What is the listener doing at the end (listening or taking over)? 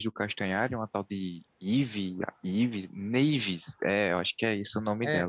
taking over